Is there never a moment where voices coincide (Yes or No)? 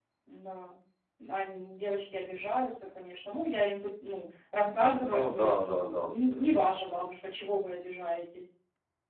No